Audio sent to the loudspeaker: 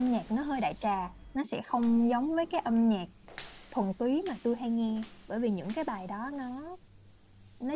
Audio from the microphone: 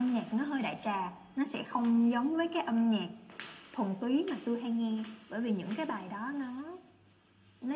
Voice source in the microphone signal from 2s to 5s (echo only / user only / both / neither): echo only